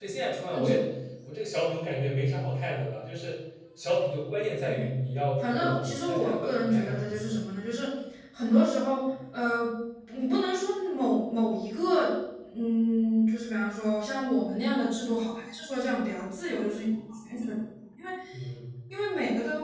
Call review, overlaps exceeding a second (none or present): present